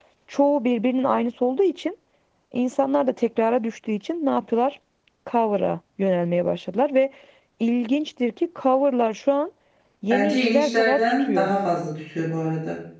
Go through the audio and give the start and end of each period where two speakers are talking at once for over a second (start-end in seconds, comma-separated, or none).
10.1-11.5